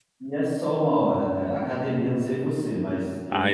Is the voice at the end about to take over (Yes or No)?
Yes